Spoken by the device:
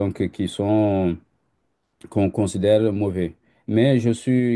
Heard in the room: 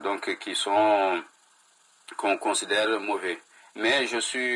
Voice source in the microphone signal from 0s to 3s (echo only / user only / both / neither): echo only